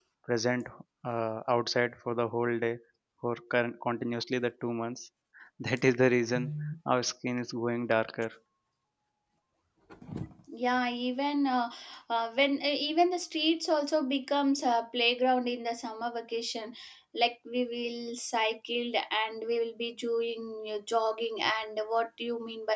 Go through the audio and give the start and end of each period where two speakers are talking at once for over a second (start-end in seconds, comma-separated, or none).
none